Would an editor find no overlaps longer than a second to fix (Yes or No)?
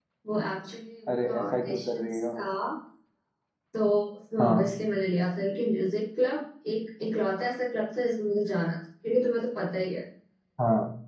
No